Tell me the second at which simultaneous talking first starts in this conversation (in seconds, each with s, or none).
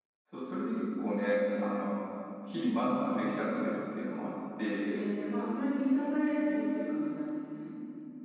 none